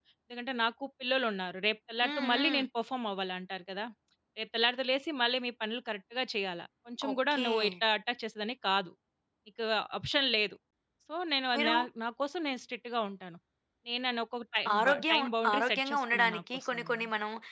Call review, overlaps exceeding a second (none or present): present